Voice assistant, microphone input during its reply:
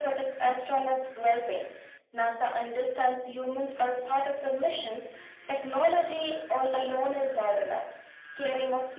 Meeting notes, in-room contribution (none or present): none